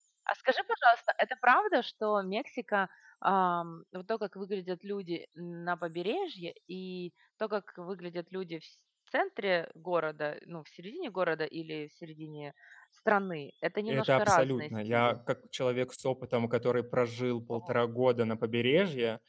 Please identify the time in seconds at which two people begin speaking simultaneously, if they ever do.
13.9 s

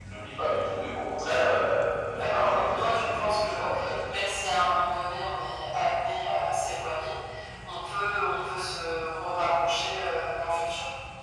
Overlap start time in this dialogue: 2.2 s

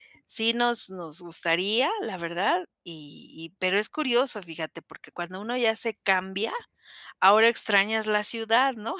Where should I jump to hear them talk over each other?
none

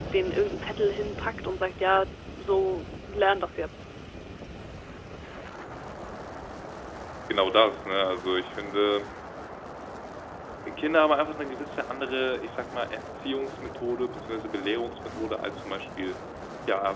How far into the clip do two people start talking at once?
none

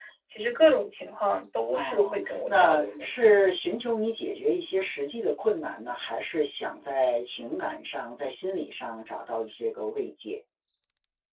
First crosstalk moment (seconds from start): 1.7 s

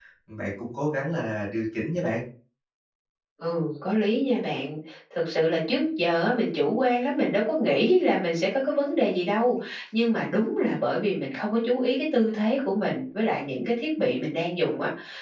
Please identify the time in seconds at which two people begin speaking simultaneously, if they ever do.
none

